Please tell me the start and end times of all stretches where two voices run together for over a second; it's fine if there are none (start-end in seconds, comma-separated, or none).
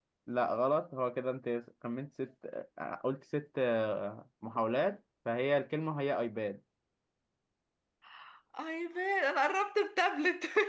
none